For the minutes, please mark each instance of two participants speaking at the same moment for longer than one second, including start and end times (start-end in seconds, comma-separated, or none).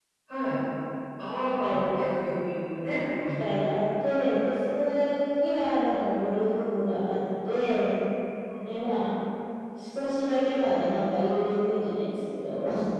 none